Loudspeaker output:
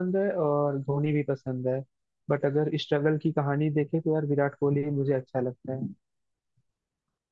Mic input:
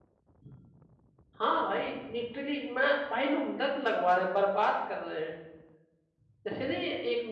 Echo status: none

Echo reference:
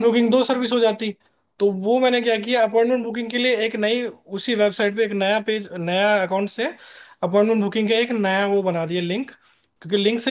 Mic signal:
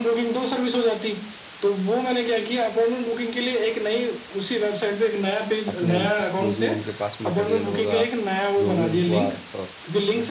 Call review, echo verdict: present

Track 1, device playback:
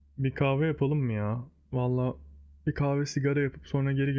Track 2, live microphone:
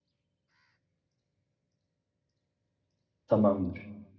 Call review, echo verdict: none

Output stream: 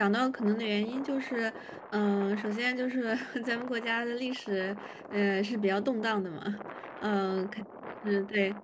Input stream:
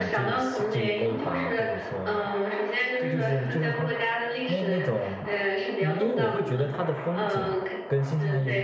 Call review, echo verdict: present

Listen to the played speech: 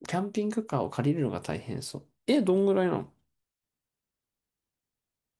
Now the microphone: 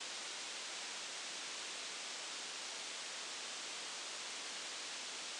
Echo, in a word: none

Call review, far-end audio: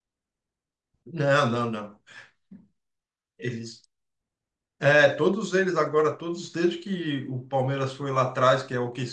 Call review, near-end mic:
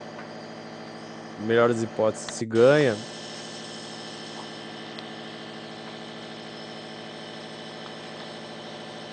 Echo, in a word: none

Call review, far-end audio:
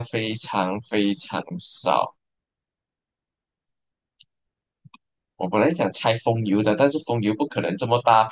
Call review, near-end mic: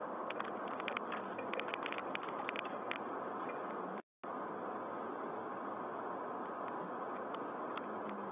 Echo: none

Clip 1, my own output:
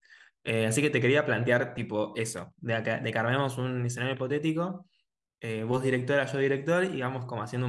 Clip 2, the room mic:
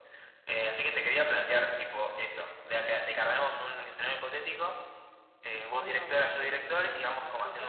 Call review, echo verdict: present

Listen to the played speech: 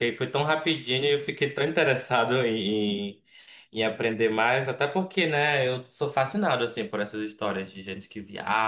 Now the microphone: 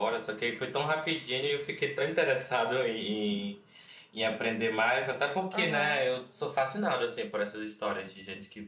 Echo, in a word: present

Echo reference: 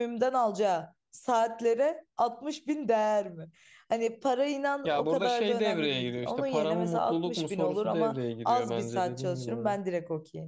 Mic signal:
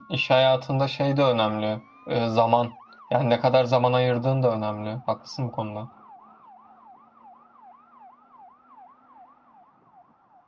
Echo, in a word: none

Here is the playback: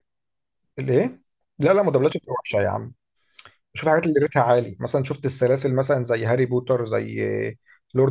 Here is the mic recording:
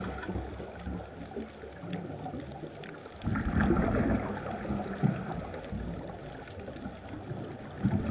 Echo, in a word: none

